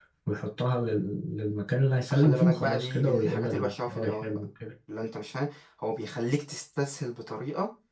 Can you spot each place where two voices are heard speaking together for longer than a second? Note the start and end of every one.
2.1-4.4

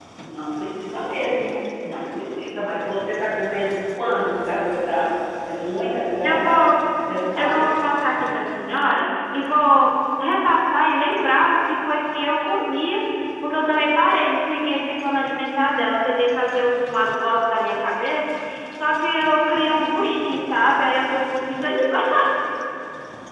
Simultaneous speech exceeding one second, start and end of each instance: none

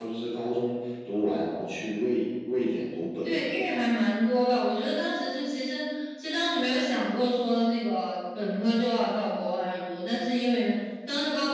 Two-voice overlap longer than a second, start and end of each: none

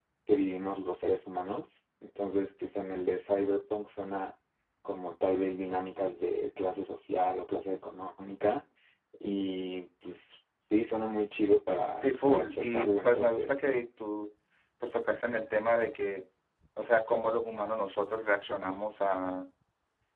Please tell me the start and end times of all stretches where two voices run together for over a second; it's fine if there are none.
12.0-13.6

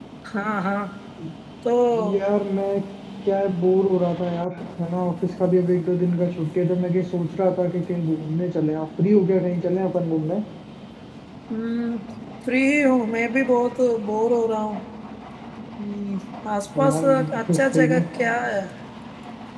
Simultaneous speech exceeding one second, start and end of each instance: 16.8-18.0

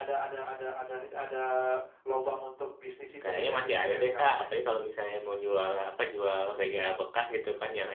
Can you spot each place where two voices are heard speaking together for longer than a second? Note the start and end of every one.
3.2-4.4

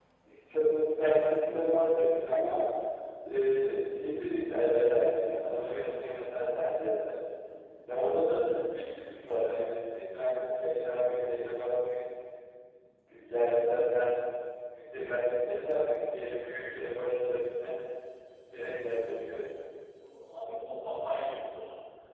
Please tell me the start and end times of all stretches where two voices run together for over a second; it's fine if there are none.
none

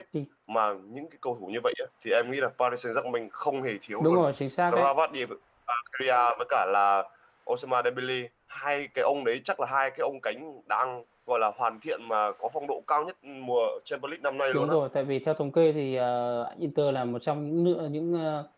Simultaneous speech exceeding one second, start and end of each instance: none

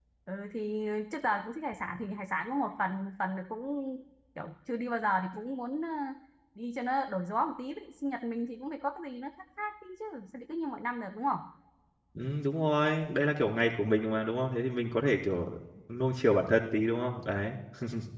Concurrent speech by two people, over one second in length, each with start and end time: none

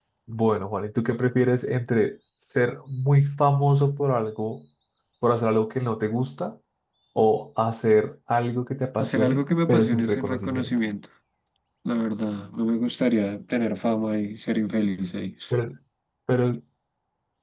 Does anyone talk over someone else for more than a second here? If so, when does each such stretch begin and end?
9.0-10.8

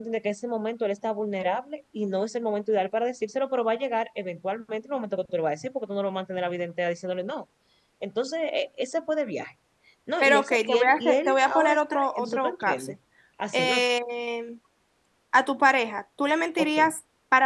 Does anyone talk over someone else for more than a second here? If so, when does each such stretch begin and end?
10.2-12.9

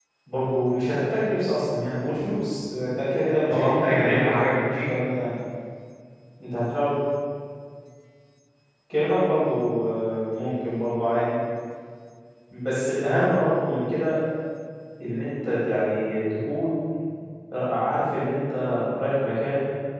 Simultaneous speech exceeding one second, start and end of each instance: 3.5-4.9

